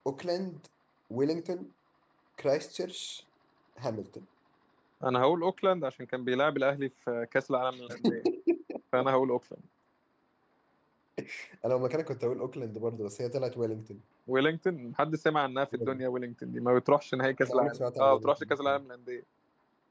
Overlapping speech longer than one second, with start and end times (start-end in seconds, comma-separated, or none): 17.4-18.8